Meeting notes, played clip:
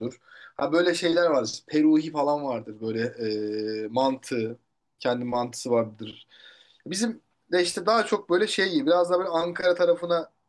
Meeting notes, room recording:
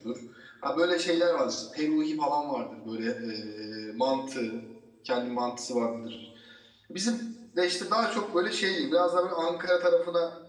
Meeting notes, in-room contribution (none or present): none